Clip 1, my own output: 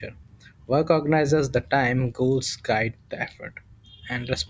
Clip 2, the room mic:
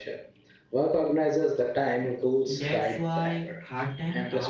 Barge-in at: 2.4 s

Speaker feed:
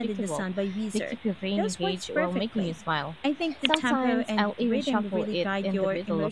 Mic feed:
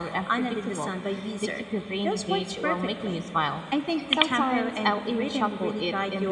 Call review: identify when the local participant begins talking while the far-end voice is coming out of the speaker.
none

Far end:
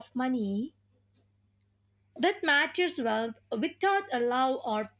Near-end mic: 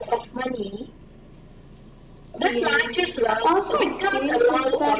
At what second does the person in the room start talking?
2.4 s

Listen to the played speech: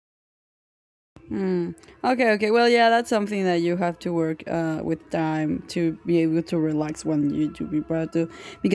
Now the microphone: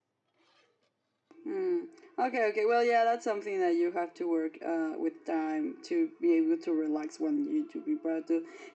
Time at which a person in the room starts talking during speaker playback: none

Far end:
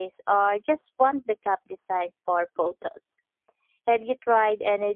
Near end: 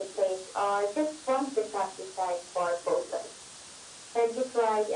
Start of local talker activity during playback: none

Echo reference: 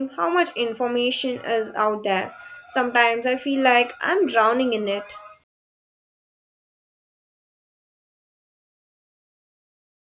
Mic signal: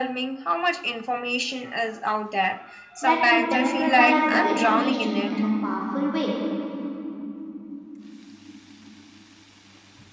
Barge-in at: 3.0 s

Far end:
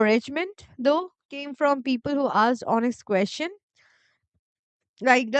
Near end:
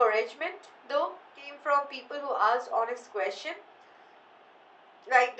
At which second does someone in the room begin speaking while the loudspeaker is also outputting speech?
none

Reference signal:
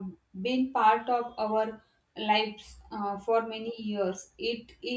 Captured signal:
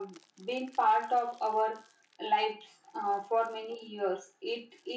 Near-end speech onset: none

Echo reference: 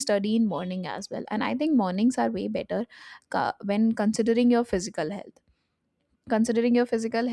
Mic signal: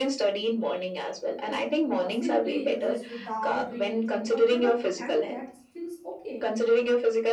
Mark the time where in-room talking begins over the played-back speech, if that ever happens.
2.0 s

